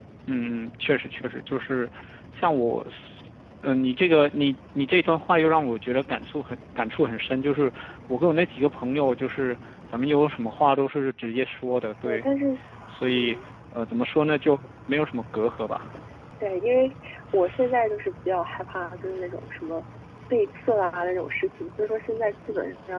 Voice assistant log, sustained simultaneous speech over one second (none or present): none